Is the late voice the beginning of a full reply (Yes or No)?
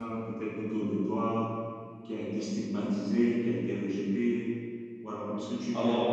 No